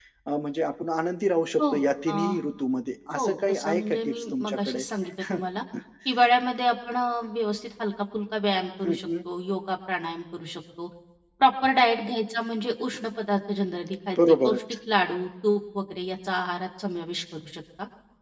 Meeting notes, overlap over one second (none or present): present